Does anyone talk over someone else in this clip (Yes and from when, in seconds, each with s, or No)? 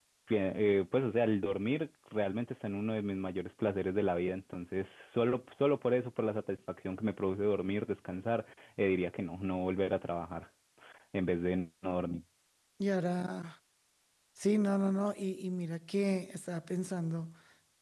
No